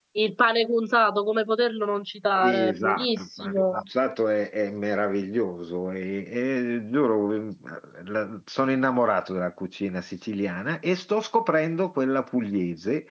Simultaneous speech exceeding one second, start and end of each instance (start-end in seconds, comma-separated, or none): 2.4-3.7